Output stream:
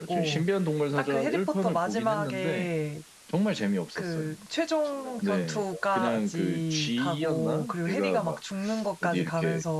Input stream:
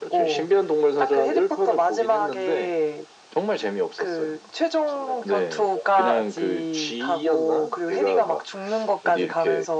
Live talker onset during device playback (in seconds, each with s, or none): none